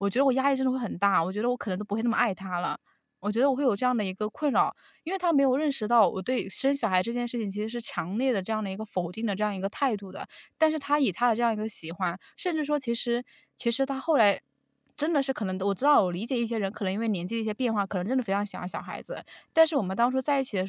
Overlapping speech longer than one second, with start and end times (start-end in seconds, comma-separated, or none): none